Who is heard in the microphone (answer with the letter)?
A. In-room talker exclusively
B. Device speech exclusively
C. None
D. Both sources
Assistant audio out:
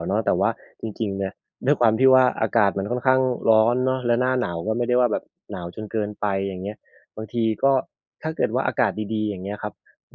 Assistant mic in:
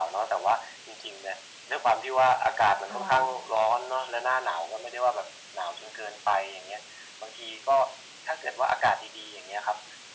D